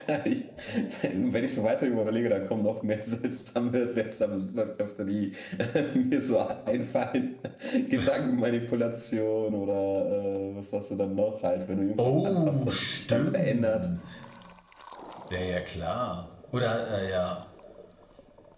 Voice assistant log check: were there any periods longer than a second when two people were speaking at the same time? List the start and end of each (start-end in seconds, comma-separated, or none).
12.0-13.9